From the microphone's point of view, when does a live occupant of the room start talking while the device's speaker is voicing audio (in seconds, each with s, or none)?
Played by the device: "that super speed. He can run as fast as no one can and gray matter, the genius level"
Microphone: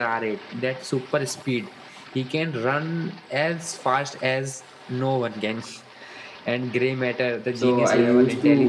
7.5 s